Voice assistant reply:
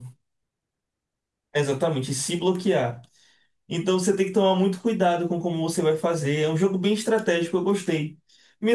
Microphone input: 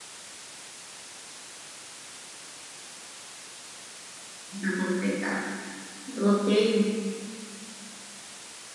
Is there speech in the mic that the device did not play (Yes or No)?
Yes